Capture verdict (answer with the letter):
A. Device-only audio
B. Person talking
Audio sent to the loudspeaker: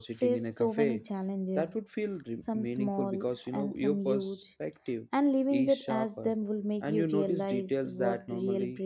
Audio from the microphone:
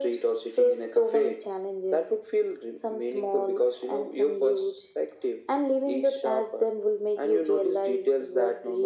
A